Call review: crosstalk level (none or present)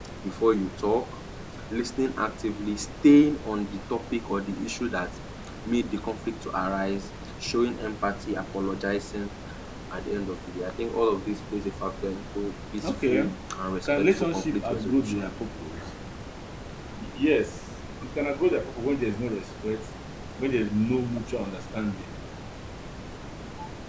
present